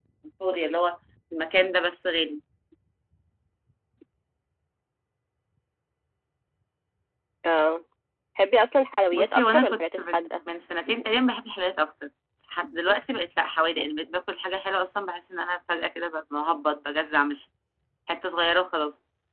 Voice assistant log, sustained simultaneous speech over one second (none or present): present